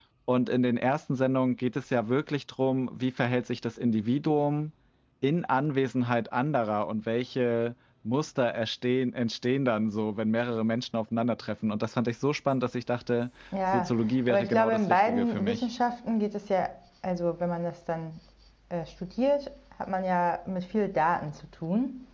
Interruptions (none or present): present